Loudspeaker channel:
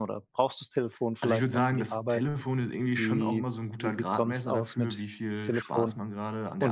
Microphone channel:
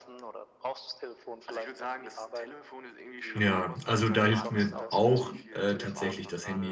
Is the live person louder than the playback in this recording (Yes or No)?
Yes